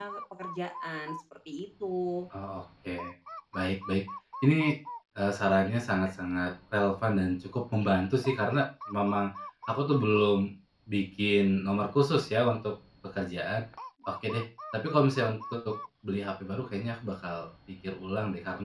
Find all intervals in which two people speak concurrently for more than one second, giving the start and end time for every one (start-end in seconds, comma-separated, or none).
none